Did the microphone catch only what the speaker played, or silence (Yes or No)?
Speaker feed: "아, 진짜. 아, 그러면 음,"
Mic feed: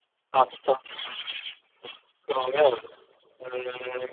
Yes